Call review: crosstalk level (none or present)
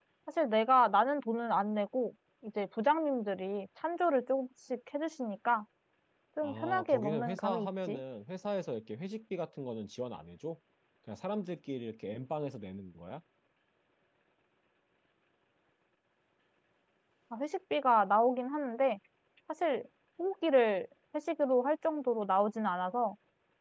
present